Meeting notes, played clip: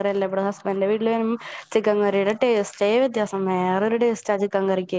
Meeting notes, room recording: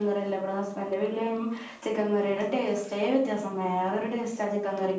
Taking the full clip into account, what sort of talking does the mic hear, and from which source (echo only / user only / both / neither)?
echo only